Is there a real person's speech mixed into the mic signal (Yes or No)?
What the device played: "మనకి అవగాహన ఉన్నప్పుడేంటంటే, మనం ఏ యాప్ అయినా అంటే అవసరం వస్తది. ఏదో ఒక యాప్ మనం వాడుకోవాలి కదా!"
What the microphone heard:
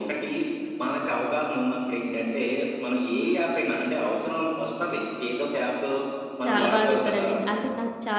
Yes